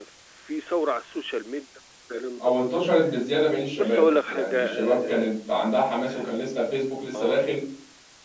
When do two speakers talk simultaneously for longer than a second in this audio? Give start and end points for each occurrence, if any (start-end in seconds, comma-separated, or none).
3.7-5.2